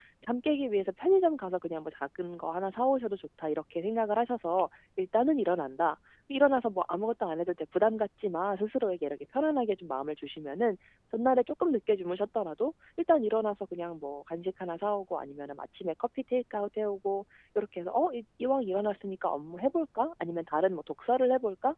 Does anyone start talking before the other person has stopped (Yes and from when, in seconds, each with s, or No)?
No